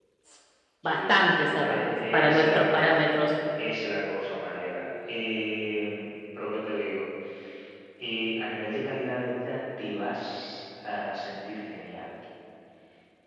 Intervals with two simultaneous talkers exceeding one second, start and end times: 0.8-3.0

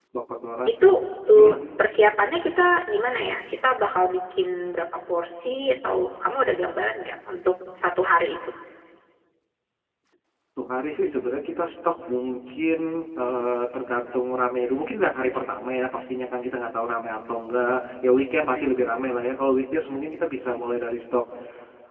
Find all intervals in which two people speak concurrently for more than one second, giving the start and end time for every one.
none

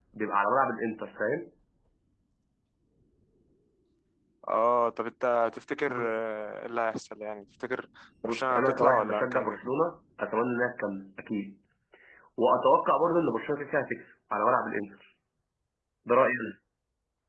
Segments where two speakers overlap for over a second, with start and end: 8.2-9.7

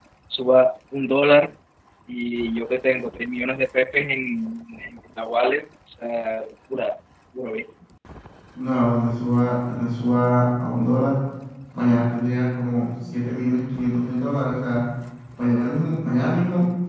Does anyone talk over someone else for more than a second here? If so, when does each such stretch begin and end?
none

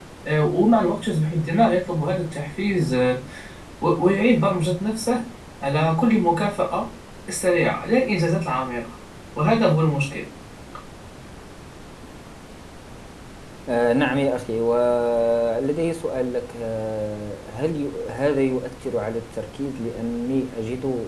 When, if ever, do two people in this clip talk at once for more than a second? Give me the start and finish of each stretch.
none

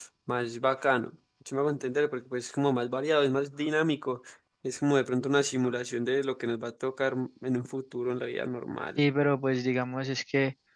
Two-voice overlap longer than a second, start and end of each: none

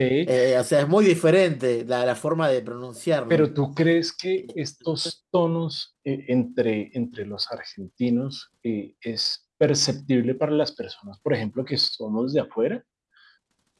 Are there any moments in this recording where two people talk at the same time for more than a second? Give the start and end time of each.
none

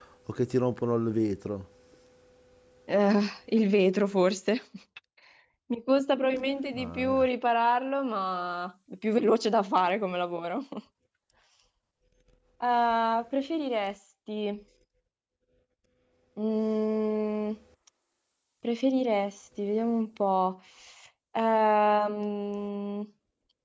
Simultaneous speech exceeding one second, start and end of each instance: none

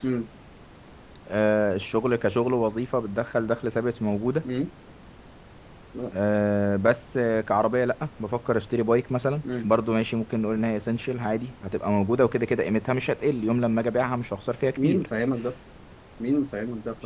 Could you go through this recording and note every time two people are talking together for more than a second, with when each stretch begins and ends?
none

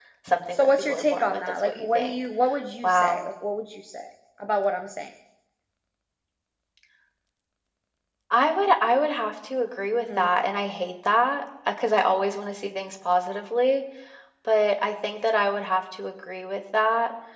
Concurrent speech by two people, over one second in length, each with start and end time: 0.5-2.1

